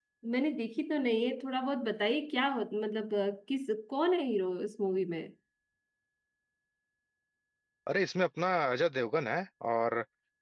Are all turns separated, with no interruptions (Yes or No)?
Yes